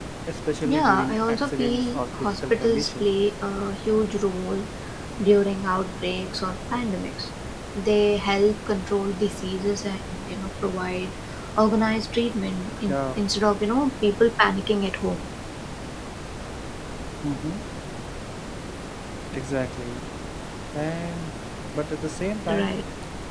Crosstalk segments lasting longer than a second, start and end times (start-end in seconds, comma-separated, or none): 0.6-3.1